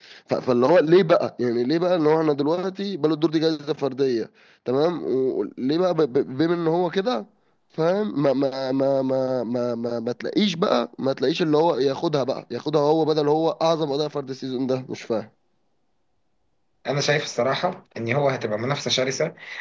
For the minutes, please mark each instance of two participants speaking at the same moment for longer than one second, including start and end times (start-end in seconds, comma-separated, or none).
none